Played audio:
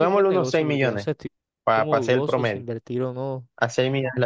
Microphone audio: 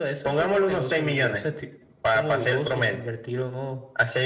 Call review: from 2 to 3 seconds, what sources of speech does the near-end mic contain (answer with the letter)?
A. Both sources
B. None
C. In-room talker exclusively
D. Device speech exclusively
D